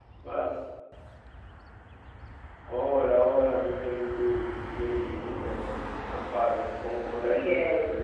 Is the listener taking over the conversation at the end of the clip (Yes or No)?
Yes